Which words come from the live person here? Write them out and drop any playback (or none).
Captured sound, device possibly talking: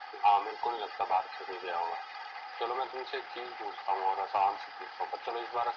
none